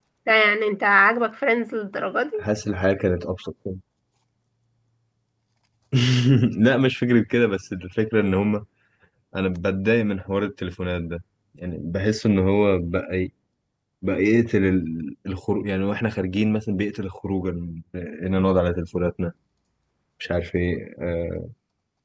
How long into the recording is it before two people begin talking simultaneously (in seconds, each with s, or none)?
none